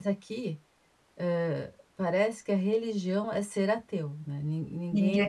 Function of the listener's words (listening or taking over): listening